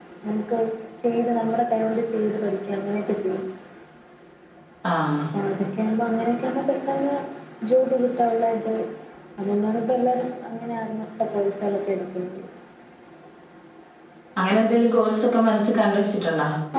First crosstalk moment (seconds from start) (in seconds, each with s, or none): none